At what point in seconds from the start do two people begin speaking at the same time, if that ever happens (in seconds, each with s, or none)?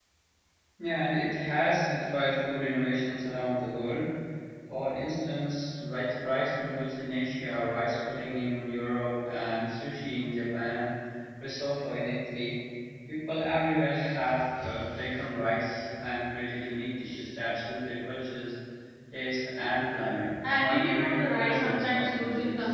20.4 s